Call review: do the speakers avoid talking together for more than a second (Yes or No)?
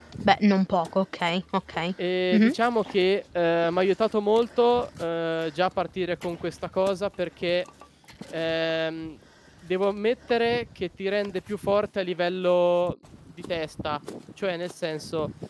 Yes